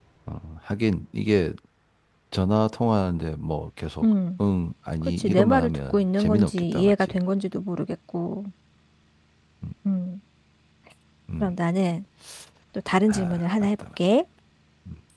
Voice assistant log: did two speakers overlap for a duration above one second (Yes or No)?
Yes